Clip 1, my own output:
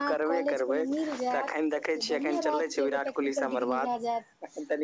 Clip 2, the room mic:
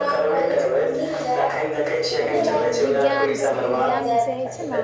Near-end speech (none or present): present